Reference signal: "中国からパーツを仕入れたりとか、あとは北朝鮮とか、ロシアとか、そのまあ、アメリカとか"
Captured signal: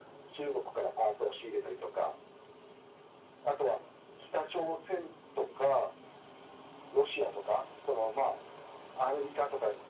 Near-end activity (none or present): none